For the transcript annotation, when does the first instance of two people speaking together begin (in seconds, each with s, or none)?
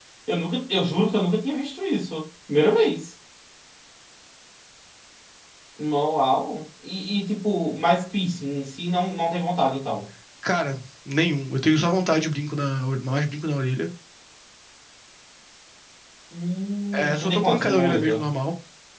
16.9 s